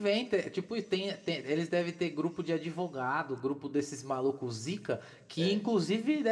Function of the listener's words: listening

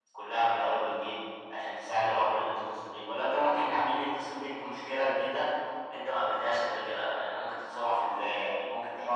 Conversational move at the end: taking over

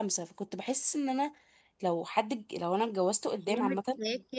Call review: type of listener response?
taking over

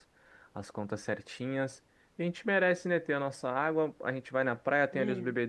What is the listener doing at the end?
listening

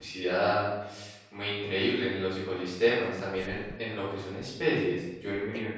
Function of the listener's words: listening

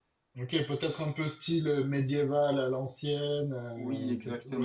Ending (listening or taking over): taking over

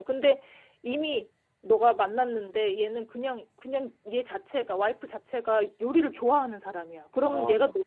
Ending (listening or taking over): listening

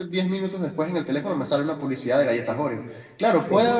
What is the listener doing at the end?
listening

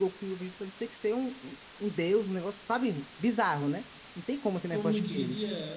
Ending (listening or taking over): taking over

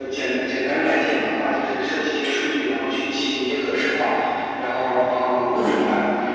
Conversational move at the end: listening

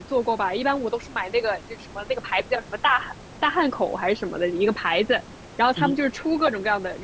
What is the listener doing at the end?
listening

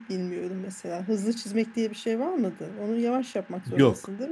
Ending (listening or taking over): taking over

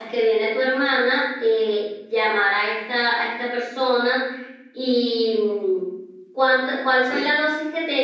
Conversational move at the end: listening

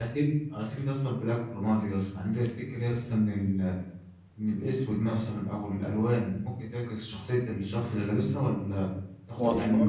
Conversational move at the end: listening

